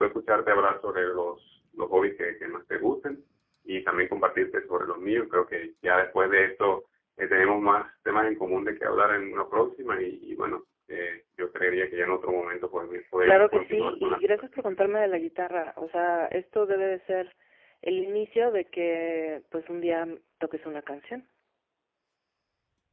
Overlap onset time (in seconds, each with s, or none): 13.2 s